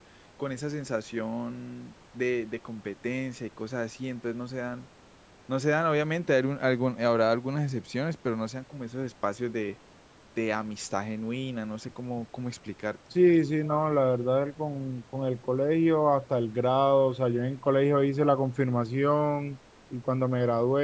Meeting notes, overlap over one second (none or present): none